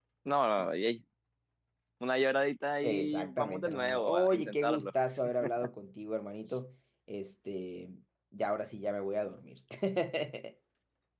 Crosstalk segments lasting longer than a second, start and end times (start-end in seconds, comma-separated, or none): 2.8-4.9